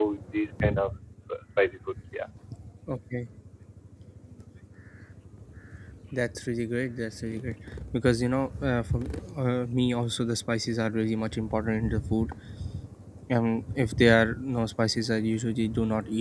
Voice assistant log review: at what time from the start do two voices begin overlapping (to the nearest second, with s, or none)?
none